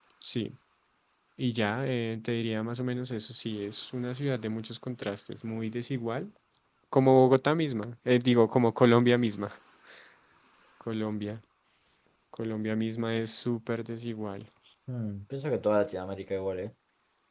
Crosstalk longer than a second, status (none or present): none